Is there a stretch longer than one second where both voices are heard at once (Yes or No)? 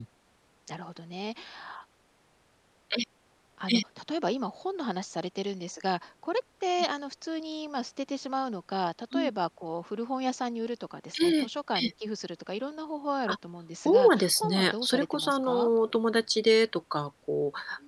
Yes